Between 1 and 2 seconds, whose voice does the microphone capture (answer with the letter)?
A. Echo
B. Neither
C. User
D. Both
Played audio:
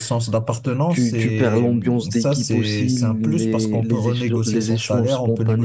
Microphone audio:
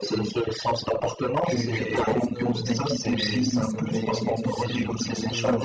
D